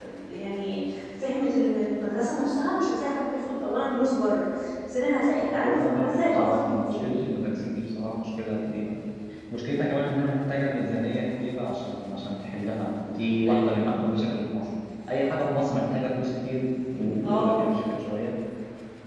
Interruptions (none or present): present